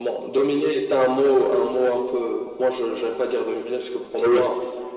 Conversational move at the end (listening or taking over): listening